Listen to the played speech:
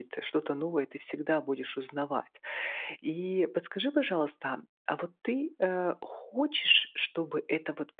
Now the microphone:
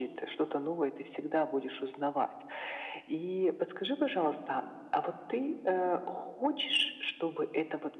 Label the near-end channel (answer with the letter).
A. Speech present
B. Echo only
B